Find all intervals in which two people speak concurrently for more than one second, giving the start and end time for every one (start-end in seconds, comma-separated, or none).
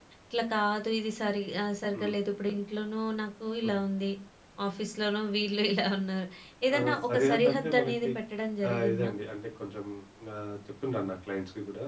6.8-8.1